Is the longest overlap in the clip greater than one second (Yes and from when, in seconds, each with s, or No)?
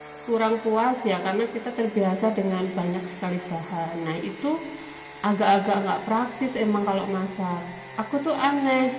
No